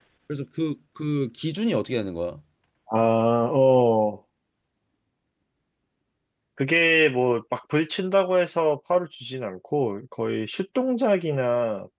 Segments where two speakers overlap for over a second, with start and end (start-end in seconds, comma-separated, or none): none